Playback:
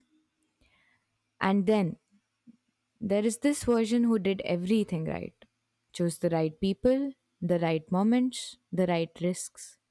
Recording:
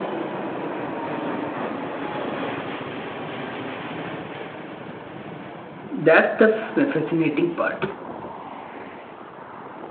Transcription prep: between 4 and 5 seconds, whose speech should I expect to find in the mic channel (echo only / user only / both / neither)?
neither